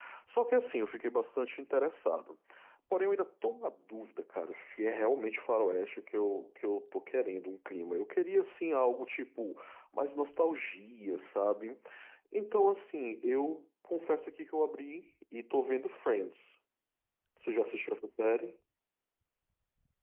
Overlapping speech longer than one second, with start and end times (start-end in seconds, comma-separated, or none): none